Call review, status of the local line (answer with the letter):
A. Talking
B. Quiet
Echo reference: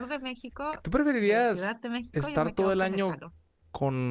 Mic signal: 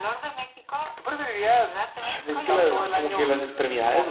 A